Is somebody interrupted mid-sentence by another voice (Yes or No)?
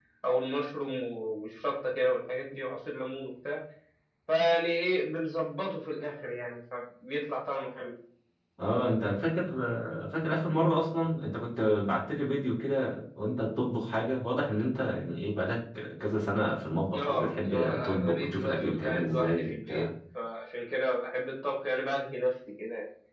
Yes